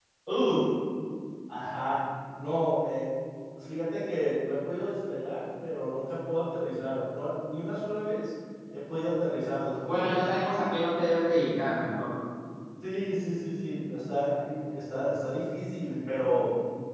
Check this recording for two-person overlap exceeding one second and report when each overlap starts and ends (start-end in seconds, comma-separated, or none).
none